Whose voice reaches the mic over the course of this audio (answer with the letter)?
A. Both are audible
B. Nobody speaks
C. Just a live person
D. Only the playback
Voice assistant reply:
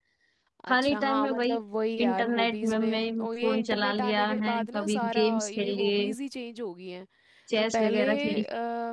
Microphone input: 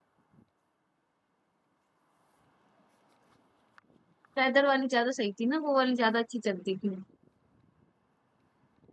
C